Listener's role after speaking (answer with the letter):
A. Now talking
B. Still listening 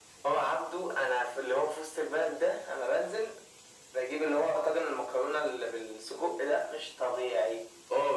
A